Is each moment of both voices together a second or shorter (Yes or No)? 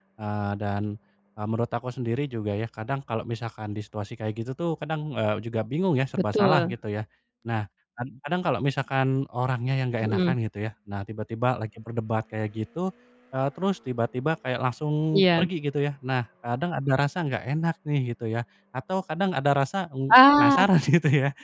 Yes